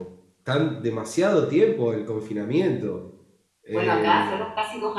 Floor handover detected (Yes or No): Yes